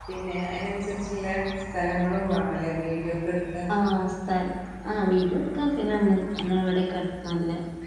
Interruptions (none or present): none